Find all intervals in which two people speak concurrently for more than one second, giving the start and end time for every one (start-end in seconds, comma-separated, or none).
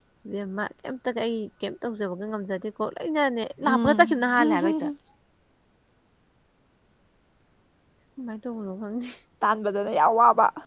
3.6-4.9